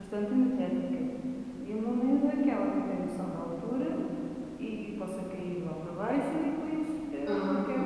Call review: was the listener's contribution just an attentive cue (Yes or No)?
Yes